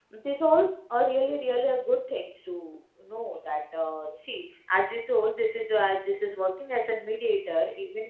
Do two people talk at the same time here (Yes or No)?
No